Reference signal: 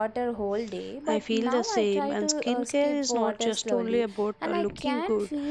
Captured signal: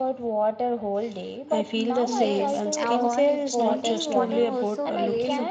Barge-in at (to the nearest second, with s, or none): 2 s